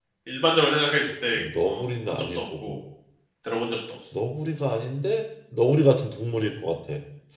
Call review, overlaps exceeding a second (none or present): present